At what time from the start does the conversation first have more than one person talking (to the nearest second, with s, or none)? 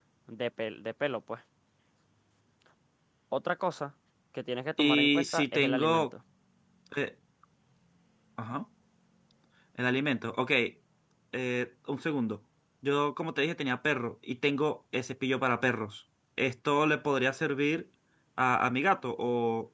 5 s